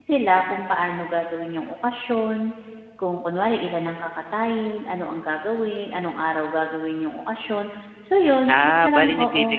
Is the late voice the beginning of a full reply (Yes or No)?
Yes